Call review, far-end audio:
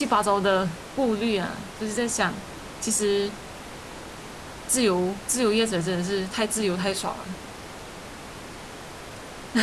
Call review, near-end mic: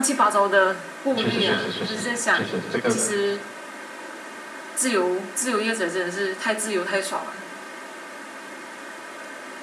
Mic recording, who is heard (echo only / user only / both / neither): both